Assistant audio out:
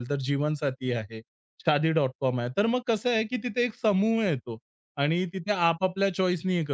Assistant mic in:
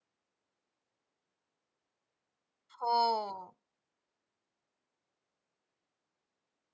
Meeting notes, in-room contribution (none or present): present